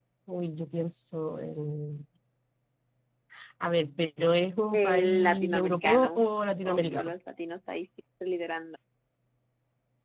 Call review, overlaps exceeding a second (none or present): present